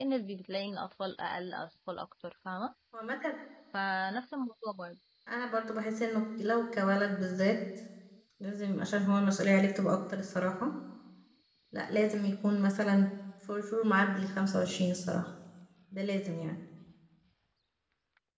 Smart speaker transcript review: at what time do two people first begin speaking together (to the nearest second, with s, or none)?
none